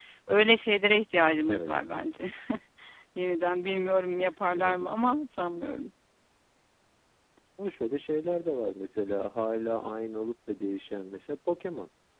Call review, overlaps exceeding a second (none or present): none